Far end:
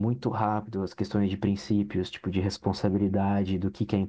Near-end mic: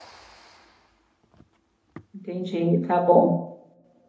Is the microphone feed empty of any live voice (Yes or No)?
No